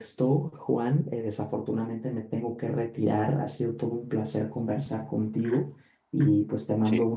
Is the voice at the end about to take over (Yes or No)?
No